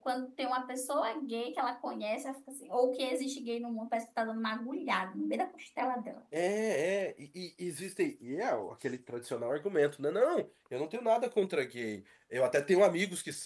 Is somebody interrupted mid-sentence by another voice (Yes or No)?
No